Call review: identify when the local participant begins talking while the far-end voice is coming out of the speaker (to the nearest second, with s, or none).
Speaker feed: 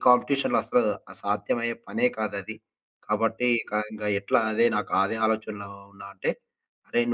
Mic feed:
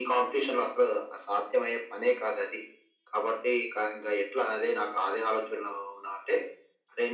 none